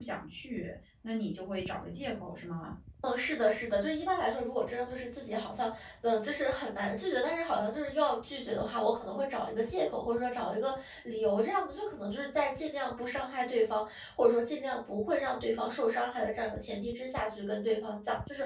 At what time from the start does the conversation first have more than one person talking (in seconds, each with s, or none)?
none